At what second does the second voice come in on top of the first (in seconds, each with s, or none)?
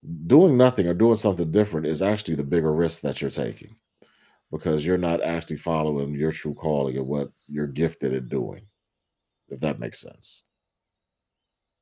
none